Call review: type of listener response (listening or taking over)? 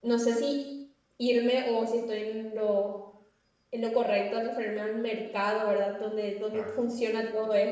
listening